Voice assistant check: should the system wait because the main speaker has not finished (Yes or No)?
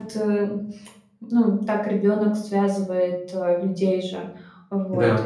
Yes